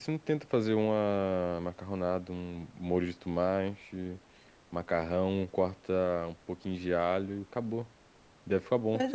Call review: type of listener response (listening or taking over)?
taking over